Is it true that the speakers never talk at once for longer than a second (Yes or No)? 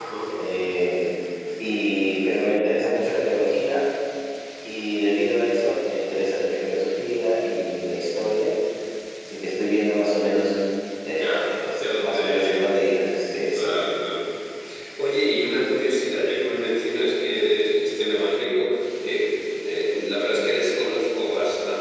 No